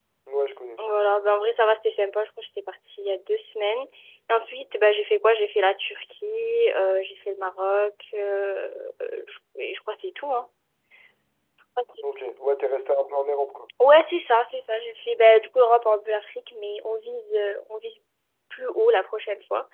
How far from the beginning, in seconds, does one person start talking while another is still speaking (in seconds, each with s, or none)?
none